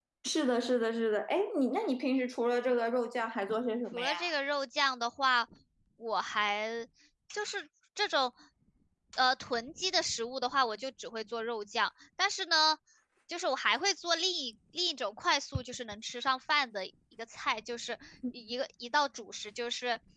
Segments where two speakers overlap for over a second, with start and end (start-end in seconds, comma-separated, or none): none